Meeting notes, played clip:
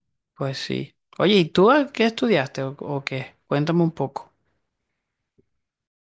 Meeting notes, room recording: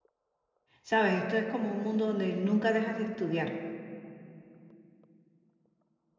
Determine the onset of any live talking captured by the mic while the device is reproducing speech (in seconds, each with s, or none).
0.8 s